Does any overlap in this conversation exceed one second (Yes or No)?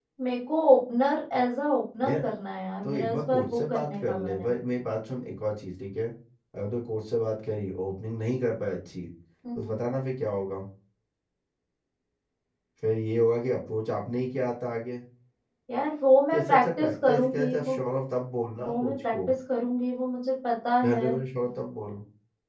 Yes